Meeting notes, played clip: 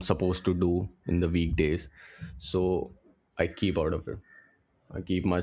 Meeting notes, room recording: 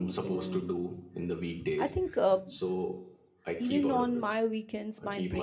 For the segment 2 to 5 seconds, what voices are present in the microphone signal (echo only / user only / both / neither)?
both